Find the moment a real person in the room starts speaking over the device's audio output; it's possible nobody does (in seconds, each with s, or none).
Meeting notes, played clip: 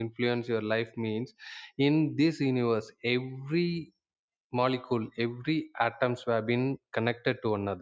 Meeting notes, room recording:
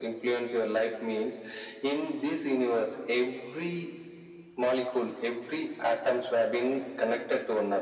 none